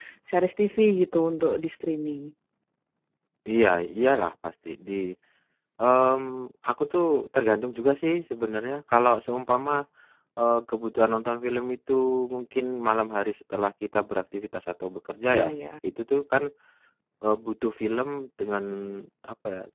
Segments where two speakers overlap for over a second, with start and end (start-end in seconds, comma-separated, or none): none